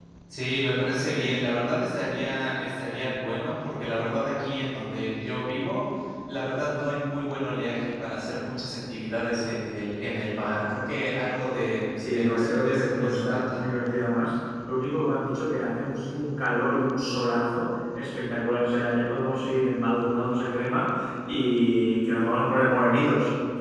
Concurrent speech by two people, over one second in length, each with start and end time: 12.1-13.6

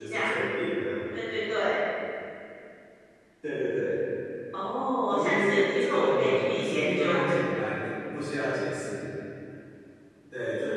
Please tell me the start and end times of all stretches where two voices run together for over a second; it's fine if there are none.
5.1-7.5

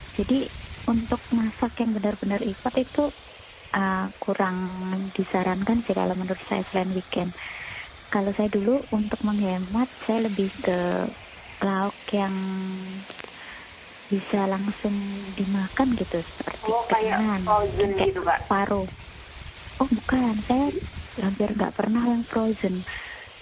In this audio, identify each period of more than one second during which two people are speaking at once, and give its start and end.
16.7-18.1

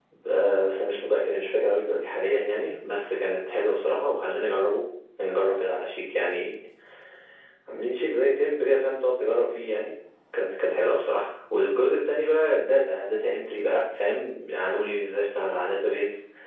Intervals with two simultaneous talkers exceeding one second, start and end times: none

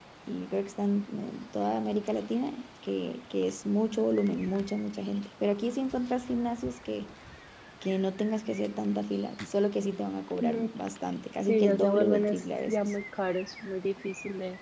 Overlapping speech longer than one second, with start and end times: 11.5-12.9

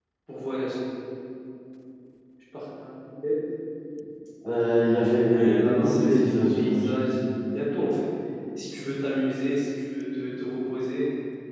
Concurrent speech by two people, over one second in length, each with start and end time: 5.2-7.1

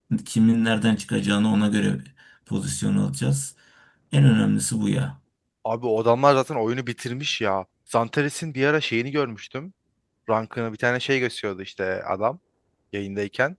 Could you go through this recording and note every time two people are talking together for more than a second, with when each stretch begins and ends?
none

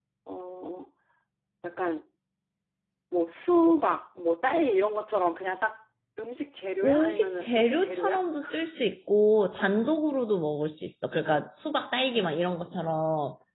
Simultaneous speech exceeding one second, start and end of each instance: 6.8-8.2

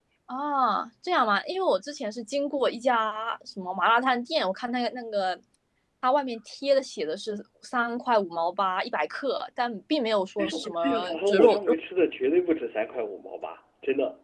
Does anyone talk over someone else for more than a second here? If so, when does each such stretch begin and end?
10.4-11.8

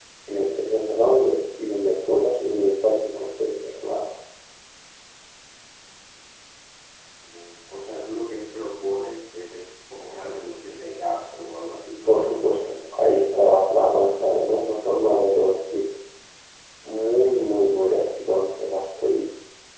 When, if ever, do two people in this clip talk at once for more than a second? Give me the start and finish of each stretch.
none

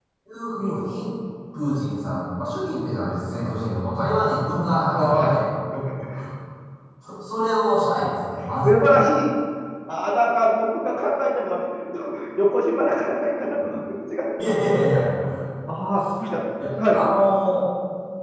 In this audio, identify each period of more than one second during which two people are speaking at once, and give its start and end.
none

